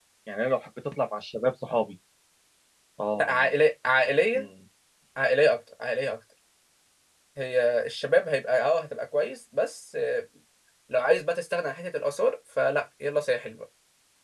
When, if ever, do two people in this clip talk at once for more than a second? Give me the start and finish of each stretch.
none

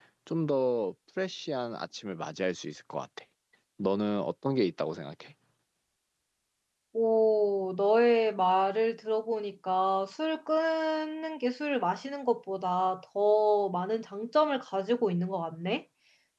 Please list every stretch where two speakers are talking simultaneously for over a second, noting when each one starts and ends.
none

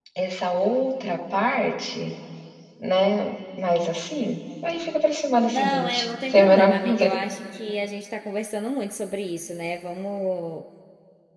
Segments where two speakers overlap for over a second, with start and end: 5.4-7.1

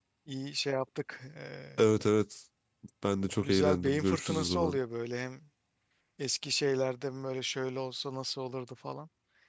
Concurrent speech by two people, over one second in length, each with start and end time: 3.4-4.8

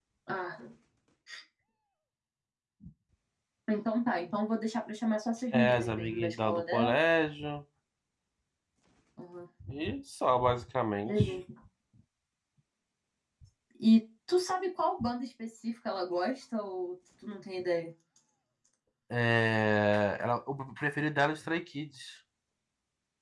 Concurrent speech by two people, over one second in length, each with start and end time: 5.5-7.0

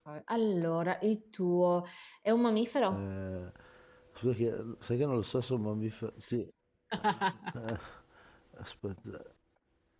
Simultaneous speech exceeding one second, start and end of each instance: none

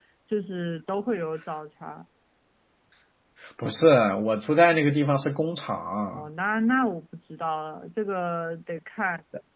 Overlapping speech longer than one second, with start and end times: none

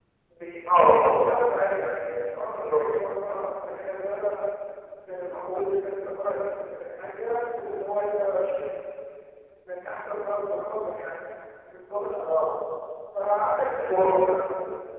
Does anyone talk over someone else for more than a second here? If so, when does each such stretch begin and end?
none

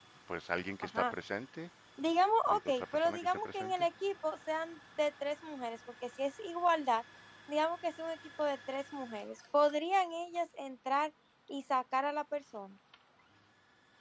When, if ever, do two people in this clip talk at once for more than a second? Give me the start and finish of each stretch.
2.5-3.9

